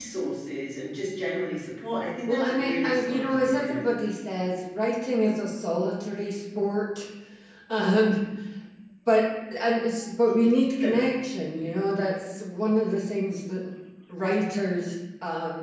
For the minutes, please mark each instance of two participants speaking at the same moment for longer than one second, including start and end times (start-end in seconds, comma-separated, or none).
2.3-3.8